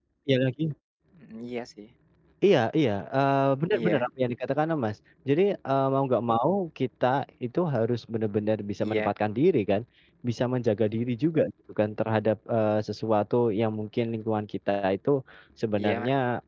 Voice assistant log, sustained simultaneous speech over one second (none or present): none